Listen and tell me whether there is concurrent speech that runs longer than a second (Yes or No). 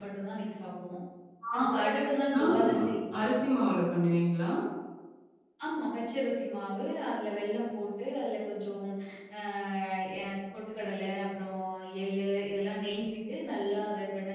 No